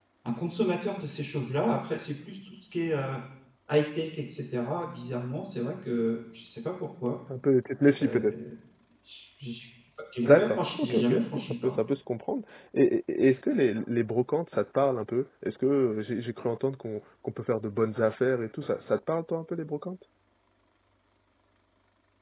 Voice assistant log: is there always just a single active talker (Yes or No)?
No